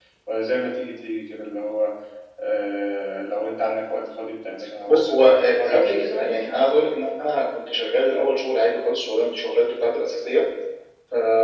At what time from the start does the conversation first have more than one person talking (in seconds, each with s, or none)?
4.8 s